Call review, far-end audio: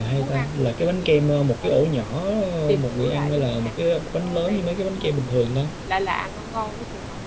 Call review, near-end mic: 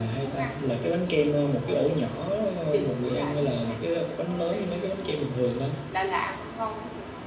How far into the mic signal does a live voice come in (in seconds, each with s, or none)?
none